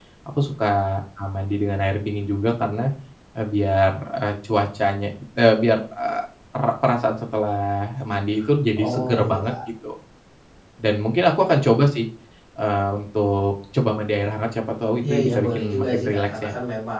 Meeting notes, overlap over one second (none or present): present